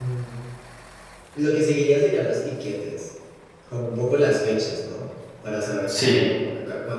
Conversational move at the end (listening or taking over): listening